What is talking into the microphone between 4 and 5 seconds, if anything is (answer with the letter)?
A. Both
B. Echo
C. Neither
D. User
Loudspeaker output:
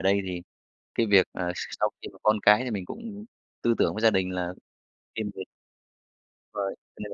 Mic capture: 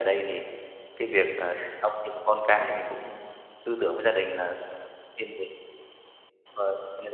B